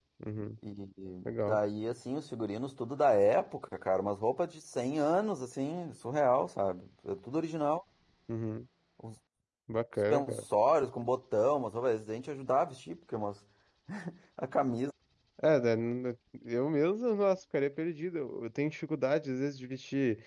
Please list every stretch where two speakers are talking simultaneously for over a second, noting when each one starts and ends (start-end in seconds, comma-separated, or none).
none